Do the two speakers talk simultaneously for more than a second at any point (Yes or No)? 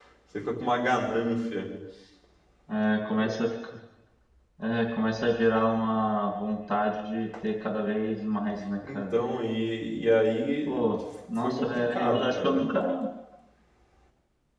Yes